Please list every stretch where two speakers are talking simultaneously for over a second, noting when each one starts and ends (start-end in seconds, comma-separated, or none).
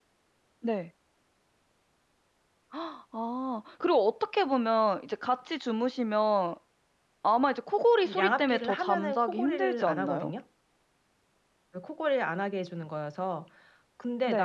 8.0-10.3